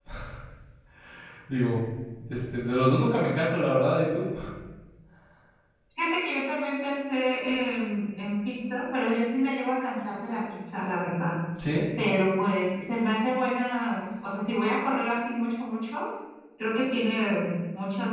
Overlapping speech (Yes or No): No